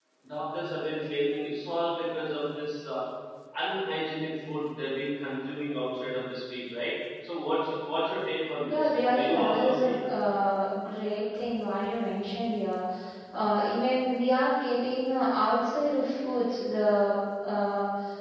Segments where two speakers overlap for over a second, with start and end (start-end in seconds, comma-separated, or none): 8.7-10.0